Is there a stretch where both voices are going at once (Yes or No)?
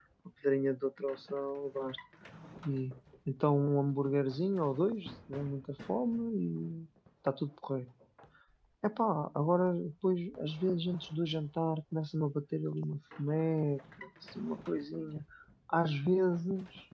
No